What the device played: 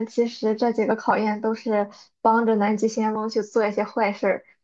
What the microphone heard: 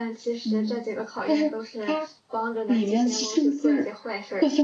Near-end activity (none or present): present